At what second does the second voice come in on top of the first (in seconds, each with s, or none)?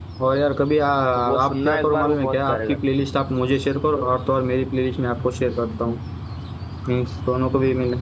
1.2 s